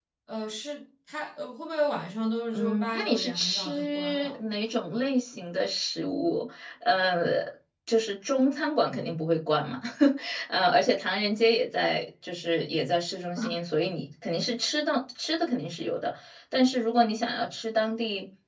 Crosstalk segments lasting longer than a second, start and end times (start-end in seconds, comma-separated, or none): 2.5-4.4